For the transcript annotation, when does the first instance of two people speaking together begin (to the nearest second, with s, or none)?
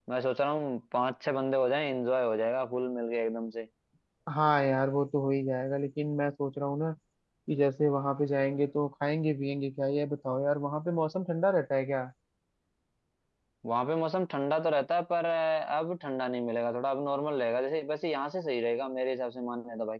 none